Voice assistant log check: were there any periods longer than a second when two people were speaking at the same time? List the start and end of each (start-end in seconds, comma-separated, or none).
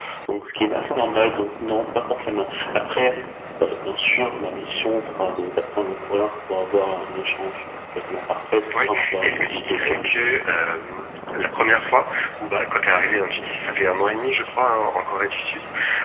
8.7-10.3